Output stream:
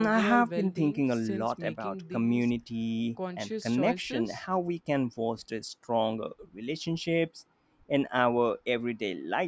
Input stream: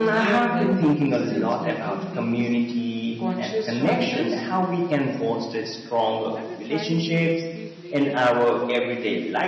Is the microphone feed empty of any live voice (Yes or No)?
No